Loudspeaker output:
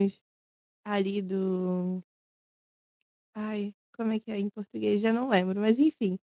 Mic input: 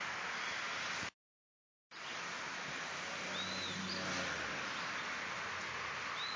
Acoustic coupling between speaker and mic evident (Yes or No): No